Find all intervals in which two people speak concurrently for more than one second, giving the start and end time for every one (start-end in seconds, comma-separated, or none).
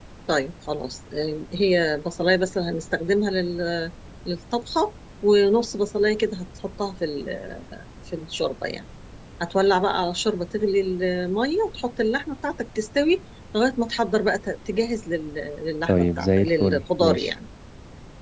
15.9-17.3